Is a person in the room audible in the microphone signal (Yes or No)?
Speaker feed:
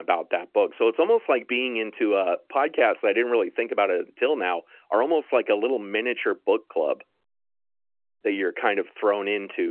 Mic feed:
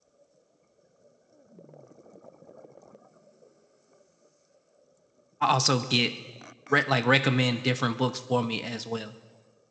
Yes